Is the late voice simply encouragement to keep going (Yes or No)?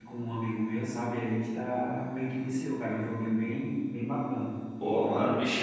No